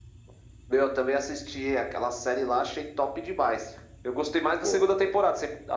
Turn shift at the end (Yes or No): No